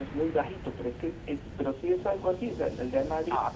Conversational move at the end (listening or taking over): taking over